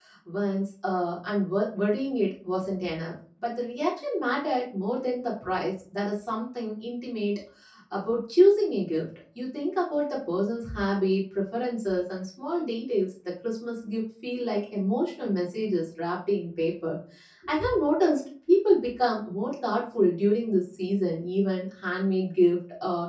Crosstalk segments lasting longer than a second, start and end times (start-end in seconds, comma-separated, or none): none